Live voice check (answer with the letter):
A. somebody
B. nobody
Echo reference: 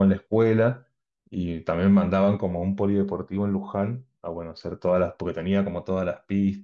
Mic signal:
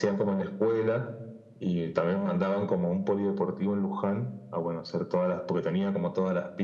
B